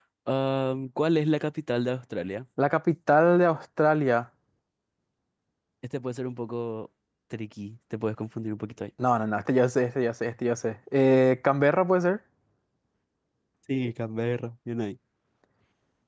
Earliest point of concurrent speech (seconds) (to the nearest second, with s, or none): none